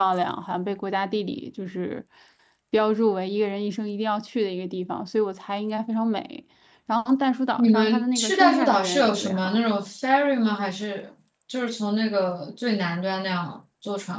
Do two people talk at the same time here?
Yes, from 7.6 s

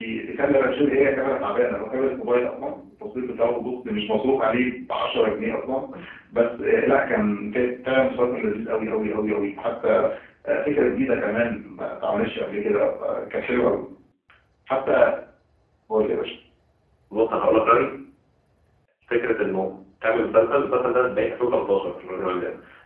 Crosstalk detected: No

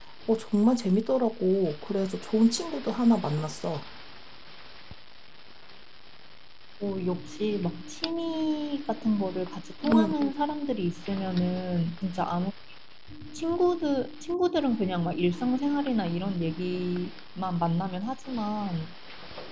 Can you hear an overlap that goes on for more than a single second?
No

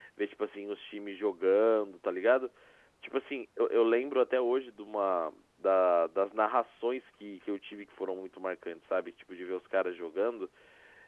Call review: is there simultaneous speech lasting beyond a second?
No

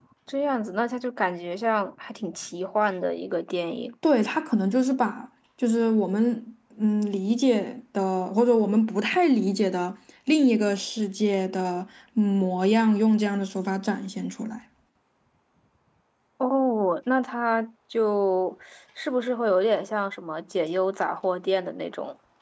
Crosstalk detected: No

